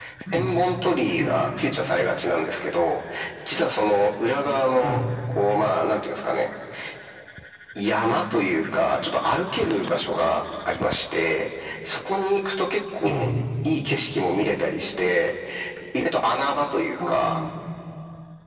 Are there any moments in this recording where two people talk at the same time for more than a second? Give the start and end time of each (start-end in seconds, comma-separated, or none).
none